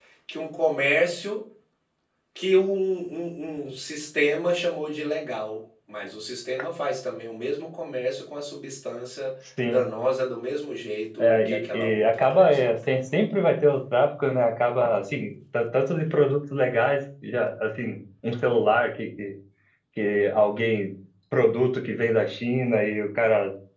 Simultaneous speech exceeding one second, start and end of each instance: 11.2-12.7

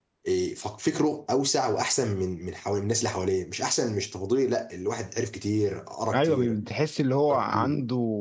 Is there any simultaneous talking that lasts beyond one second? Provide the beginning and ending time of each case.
none

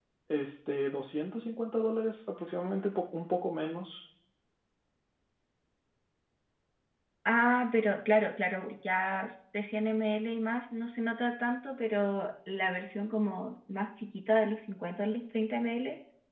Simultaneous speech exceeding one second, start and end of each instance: none

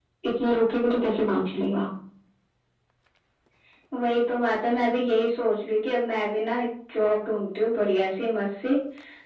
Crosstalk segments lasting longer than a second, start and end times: none

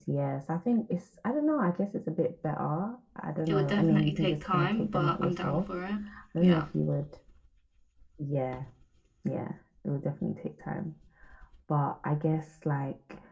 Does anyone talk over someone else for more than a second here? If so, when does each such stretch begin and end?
3.5-5.7

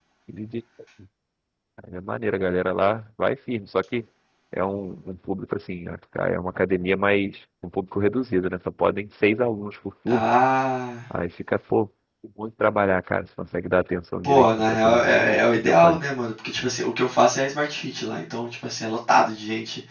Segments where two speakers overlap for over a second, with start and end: 14.2-16.0

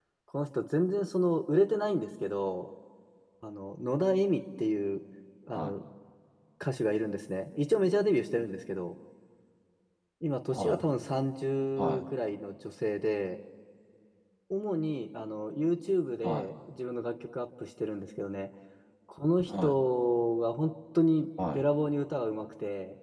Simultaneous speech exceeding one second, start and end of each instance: none

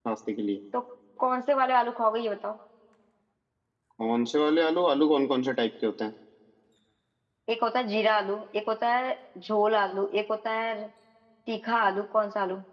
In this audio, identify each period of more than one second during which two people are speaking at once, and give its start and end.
none

